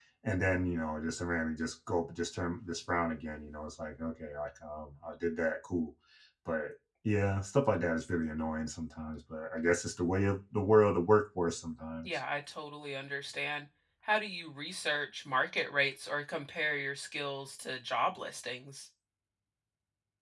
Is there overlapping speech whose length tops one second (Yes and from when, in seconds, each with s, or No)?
No